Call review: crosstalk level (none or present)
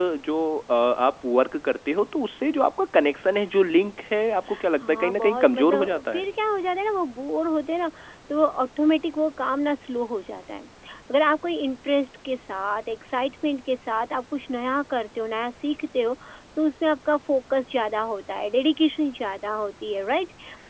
present